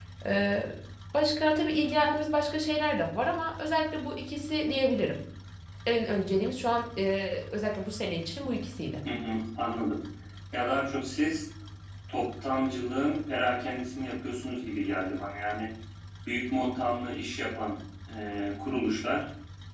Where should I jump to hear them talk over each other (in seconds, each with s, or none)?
none